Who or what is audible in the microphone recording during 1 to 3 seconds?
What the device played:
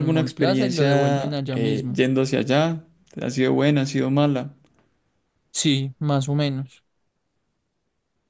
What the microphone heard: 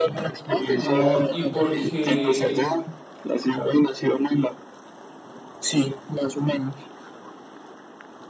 both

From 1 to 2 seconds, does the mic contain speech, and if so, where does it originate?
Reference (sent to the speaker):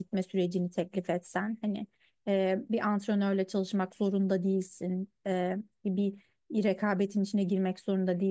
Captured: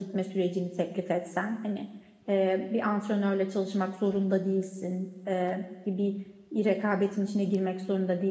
echo only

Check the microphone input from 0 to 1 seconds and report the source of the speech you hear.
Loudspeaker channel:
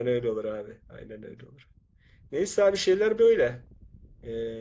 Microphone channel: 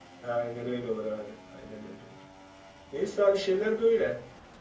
echo only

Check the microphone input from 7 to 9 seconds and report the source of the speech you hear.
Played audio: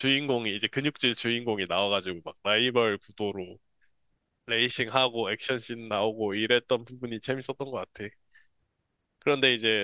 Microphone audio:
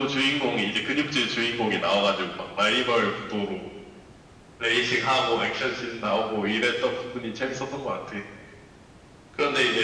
echo only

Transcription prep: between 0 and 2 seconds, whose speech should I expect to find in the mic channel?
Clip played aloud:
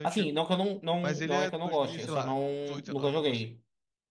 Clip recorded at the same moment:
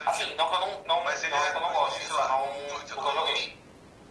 echo only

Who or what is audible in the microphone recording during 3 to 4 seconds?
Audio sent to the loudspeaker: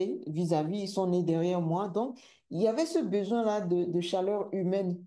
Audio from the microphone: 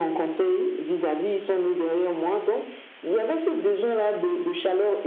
echo only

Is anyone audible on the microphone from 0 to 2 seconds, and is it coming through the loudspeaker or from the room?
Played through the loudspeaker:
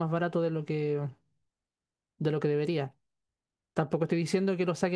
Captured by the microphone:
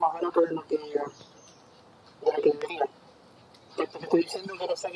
echo only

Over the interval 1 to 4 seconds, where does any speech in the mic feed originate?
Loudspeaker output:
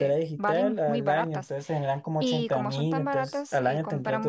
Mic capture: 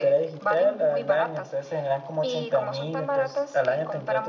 echo only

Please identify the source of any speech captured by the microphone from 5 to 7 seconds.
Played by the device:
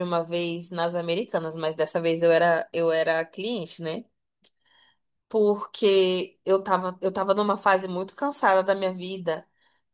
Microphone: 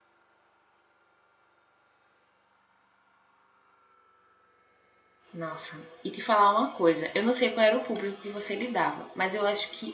user only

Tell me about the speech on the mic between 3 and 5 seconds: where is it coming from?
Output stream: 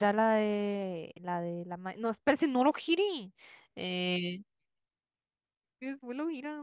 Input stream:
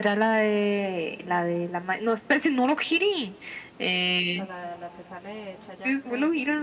both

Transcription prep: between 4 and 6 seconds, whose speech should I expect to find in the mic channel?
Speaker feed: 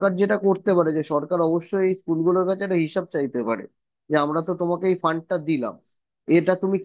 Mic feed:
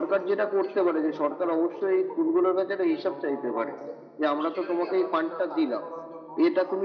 both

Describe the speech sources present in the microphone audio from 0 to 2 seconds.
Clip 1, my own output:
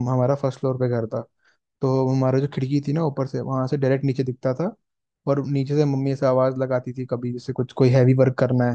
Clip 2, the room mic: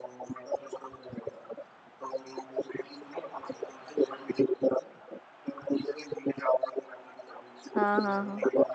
echo only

